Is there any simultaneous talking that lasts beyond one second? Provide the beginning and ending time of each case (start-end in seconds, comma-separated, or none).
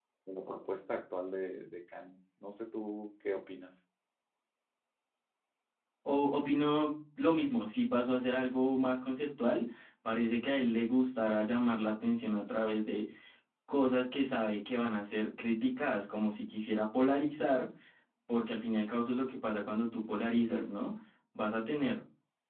none